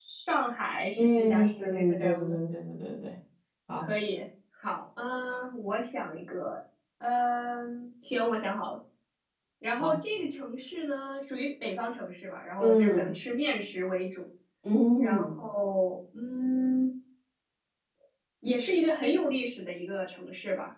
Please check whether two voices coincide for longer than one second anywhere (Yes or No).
Yes